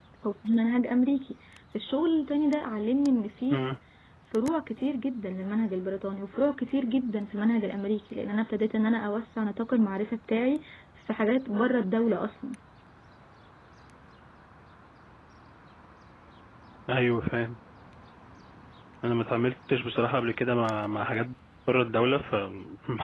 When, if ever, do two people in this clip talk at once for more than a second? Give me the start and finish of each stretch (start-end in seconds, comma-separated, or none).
none